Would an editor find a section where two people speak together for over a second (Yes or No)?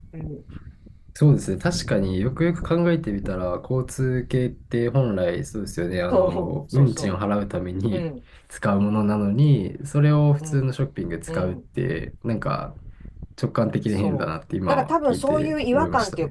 Yes